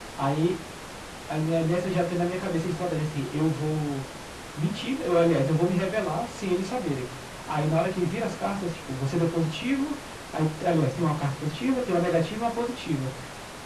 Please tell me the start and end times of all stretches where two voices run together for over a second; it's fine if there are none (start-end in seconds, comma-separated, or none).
none